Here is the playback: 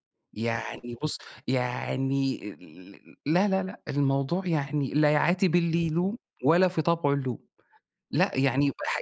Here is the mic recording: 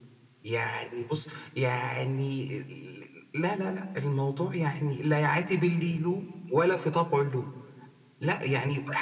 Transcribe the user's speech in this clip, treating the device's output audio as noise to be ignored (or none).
none